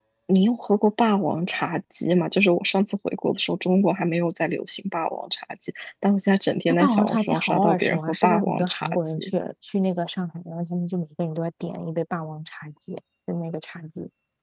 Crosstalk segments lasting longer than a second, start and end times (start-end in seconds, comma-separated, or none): 6.7-9.3